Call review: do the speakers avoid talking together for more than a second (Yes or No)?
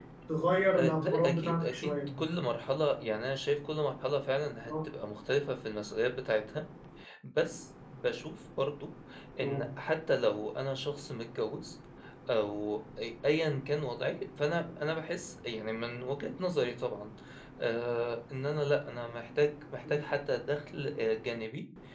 No